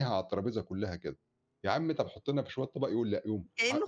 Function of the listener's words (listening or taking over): taking over